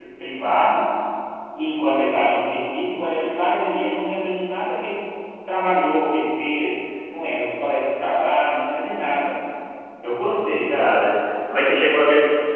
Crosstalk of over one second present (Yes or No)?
No